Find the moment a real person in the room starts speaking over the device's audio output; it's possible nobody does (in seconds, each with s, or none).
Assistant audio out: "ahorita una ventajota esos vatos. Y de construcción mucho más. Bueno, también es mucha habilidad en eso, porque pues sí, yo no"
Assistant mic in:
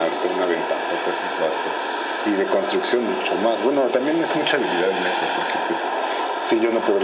none